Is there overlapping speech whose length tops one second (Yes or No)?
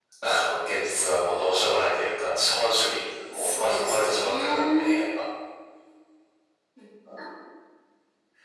Yes